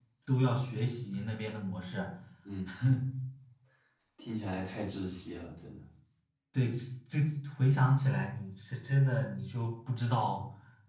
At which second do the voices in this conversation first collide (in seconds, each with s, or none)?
none